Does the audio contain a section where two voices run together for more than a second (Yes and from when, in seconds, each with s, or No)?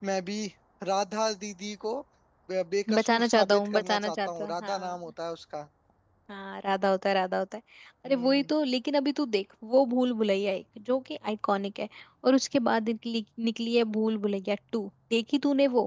Yes, from 3.0 s